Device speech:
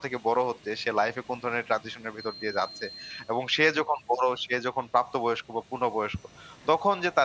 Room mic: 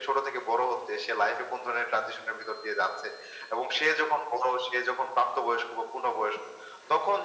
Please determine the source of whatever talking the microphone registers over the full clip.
echo only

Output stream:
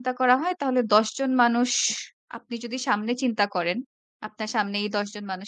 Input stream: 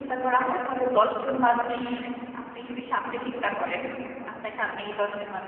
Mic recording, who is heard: echo only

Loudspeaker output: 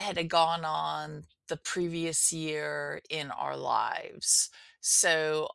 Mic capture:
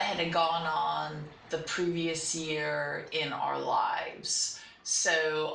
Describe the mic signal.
echo only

